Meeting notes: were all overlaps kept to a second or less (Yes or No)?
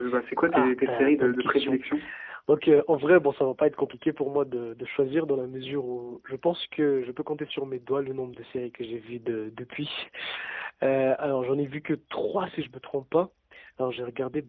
No